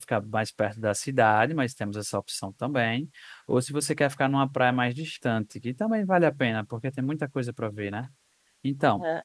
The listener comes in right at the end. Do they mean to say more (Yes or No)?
Yes